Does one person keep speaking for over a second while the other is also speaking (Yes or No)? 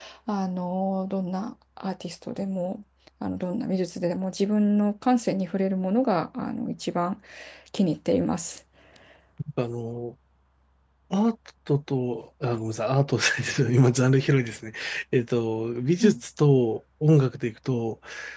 No